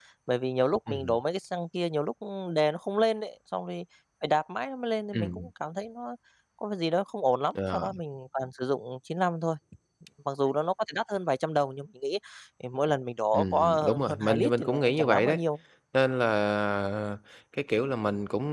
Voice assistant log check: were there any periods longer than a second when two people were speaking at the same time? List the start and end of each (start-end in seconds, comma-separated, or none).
13.3-15.4